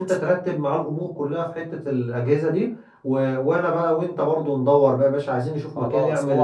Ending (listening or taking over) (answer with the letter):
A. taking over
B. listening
A